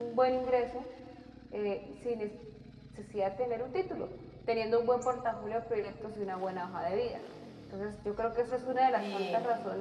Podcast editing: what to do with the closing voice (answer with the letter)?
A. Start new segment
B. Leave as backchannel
B